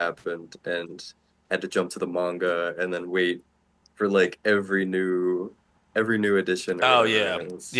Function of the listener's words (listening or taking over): taking over